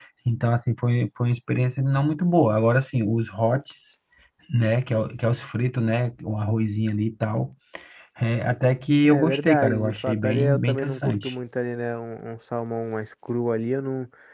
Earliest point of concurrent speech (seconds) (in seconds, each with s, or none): 9.0 s